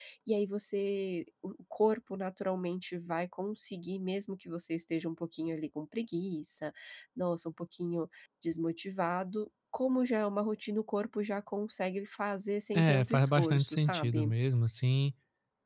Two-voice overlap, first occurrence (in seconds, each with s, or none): 12.7 s